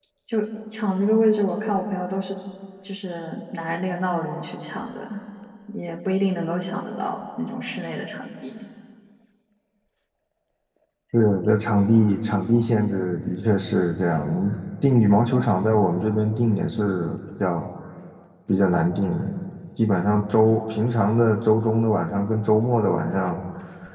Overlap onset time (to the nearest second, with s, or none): none